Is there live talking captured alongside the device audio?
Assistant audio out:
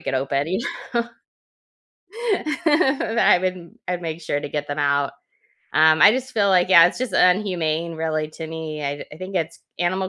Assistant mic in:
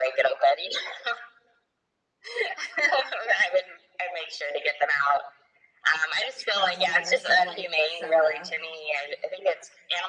Yes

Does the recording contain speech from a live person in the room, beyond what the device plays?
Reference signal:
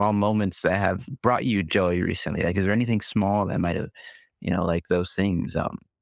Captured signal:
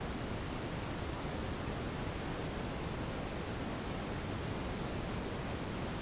No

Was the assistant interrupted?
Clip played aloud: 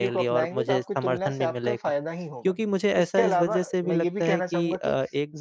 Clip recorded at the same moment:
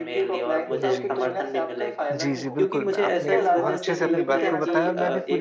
Yes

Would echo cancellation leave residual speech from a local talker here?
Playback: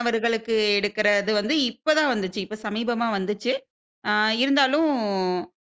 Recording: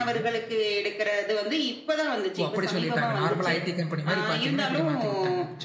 Yes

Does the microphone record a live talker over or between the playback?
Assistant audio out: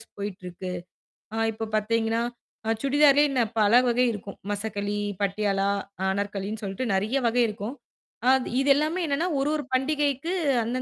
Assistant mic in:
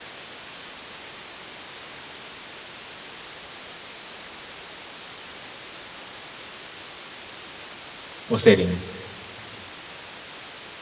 Yes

